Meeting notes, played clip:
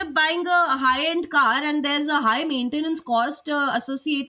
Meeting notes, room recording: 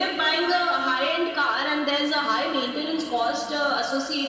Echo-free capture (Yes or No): No